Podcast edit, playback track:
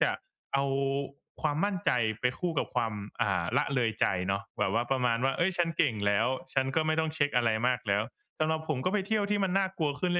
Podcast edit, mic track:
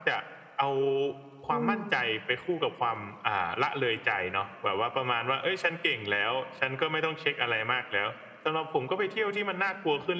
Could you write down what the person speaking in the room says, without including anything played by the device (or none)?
อือ